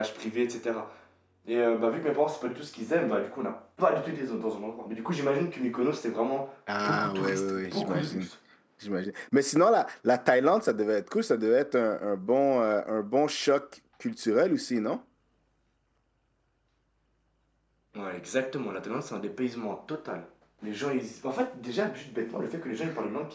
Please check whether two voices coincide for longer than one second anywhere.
Yes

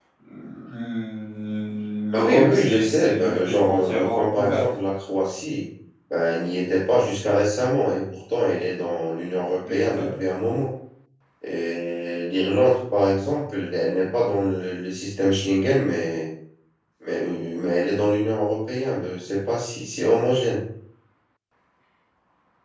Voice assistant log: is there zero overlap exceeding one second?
No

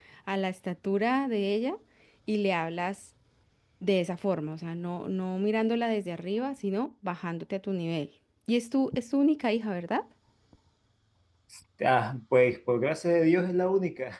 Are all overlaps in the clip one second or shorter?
Yes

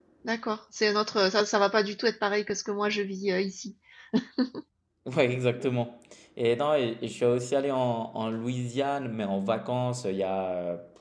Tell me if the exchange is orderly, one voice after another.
Yes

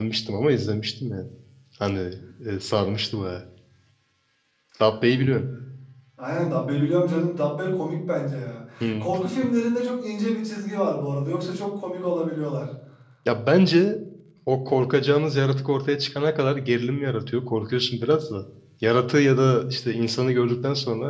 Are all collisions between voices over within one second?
Yes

